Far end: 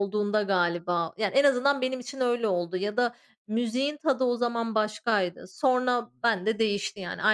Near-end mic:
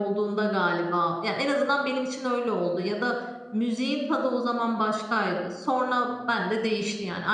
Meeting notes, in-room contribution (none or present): none